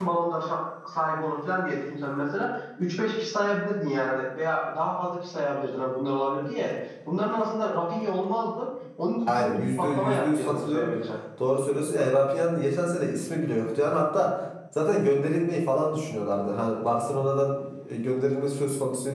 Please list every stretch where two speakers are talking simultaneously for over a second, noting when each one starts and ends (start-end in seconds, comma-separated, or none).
9.3-10.9